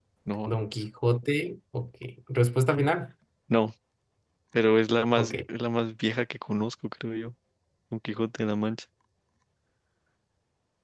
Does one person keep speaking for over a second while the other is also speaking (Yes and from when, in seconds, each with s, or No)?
No